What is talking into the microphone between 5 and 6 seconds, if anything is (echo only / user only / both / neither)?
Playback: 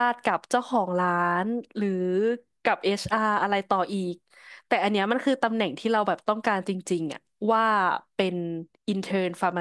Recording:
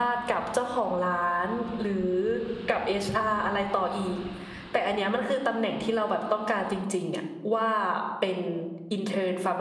echo only